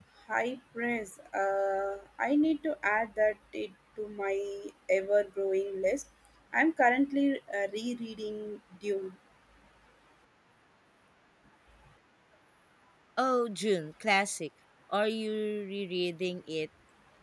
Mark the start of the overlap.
none

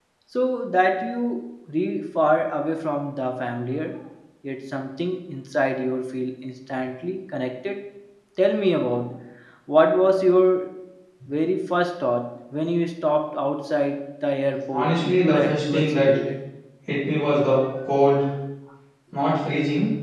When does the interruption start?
15 s

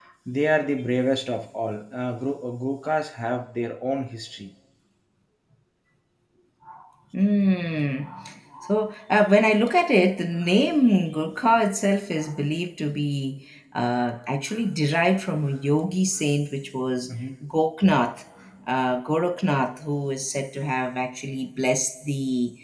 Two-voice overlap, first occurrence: none

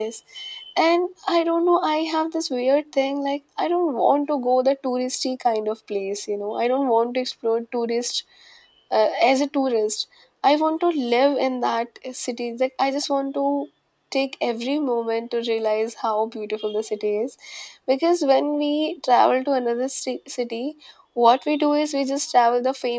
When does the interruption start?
none

